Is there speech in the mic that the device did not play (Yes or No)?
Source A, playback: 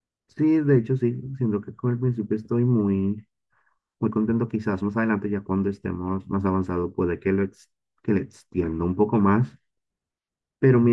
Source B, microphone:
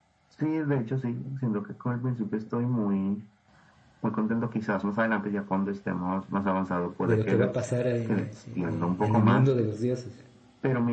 Yes